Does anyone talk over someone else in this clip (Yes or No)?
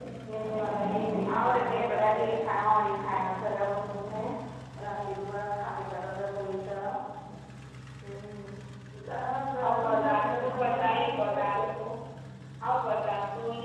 Yes